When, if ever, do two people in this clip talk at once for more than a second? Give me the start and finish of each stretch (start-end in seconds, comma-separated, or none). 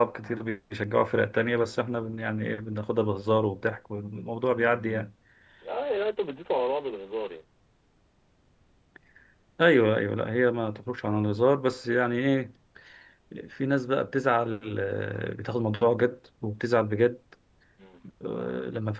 none